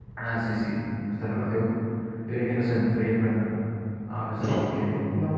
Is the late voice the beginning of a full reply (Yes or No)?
No